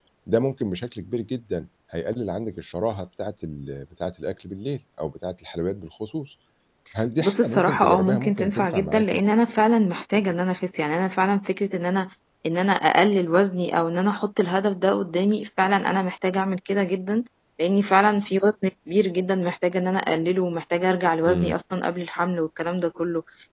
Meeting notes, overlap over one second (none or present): present